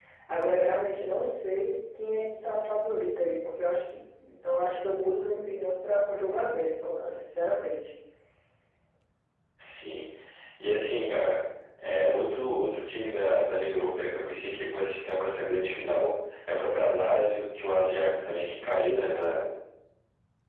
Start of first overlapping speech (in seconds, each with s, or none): none